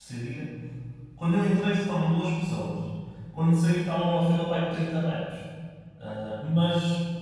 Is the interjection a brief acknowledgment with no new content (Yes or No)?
Yes